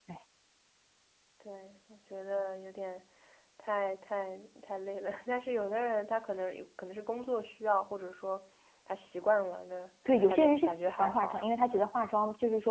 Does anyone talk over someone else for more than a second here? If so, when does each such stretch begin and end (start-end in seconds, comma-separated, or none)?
10.1-11.5